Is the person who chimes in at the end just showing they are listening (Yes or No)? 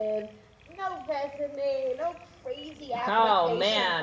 No